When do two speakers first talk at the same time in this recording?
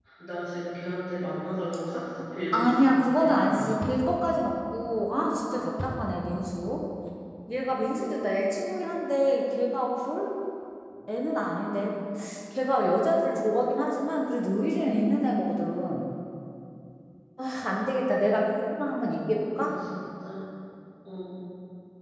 3 s

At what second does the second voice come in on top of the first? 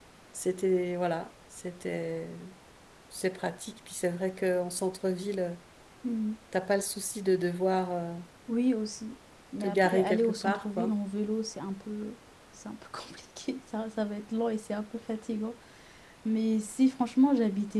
10 s

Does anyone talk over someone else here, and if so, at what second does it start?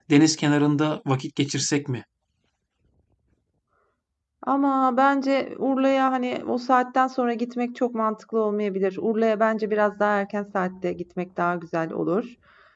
none

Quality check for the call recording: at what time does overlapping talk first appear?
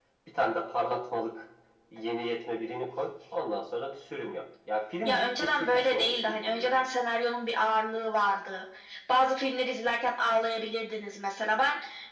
5 s

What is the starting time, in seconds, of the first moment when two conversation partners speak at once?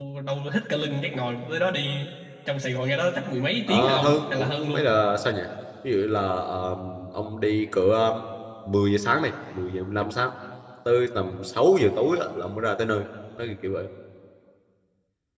4 s

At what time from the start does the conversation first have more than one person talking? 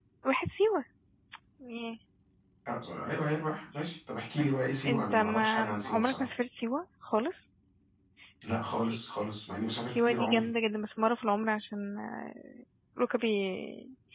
5 s

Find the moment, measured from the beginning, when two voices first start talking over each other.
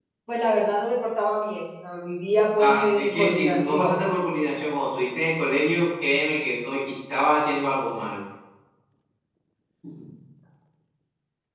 3 s

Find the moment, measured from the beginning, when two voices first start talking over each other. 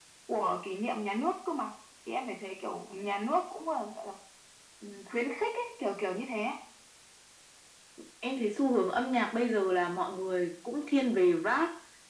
none

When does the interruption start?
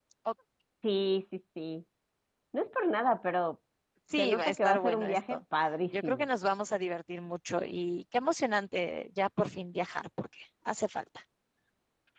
4 s

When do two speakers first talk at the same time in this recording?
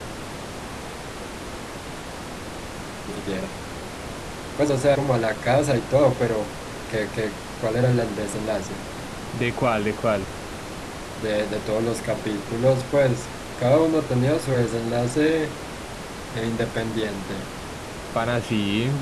none

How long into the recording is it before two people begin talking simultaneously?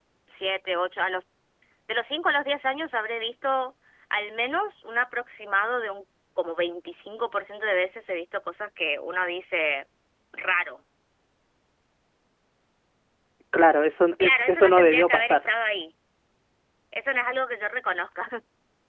14 s

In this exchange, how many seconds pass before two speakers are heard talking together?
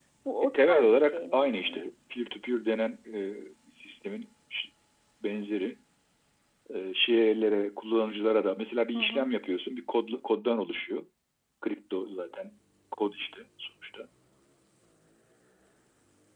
1 s

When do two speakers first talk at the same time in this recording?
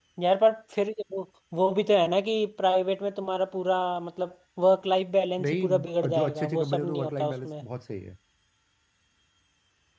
5 s

